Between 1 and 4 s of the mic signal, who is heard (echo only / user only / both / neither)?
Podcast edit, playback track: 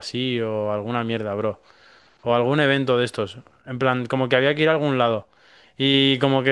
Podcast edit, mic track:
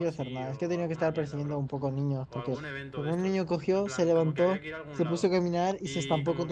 both